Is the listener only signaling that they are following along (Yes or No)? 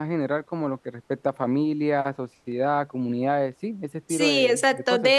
No